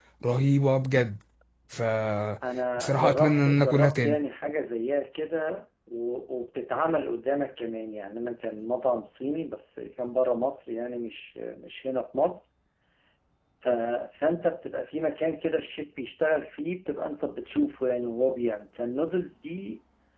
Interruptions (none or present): present